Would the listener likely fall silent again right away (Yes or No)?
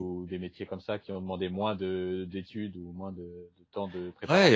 No